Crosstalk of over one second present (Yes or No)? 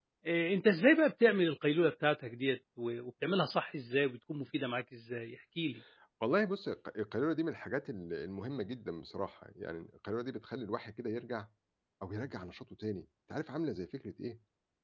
No